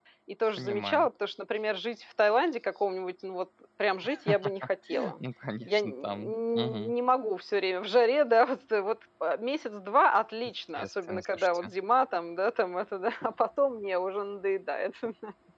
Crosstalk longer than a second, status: present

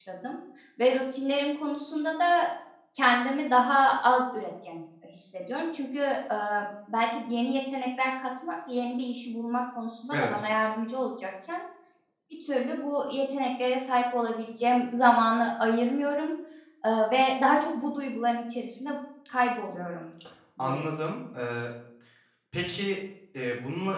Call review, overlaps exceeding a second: none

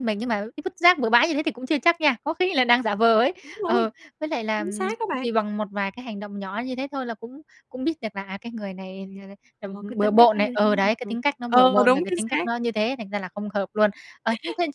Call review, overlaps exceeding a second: present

